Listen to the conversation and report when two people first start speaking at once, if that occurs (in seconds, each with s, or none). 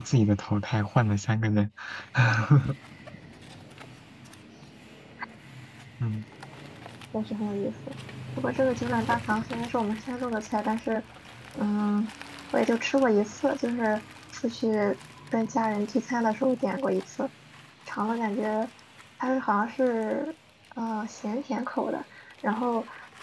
none